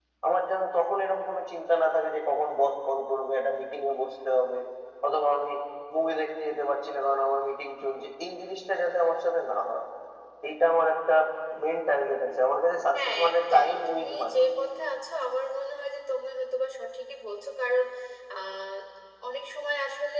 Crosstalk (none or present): present